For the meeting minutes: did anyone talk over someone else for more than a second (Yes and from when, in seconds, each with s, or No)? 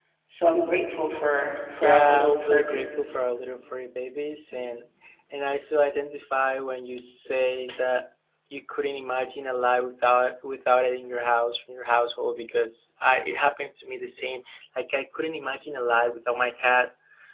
Yes, from 1.8 s